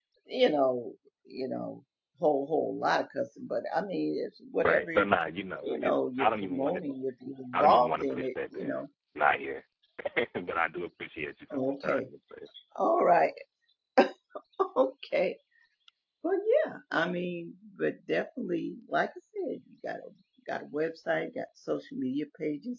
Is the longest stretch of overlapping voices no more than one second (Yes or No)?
No